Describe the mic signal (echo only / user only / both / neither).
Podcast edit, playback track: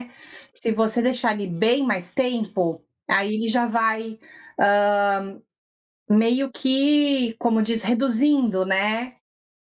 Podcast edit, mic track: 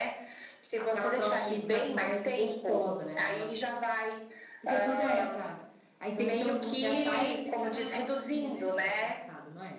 both